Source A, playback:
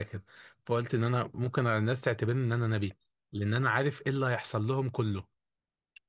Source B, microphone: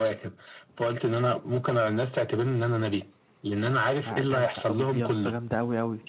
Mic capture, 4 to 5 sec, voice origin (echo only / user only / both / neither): both